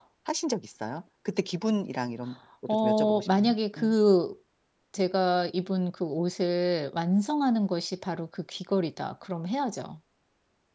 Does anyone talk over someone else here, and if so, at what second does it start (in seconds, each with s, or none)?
2.7 s